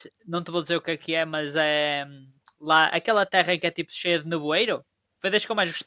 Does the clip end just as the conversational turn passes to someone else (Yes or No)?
Yes